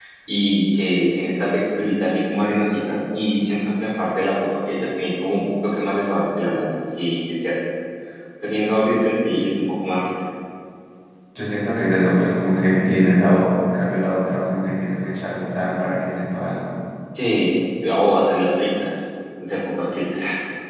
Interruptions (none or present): none